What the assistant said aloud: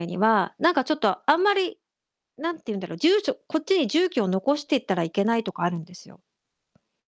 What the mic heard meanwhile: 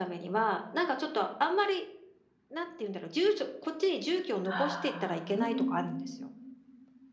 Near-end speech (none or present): present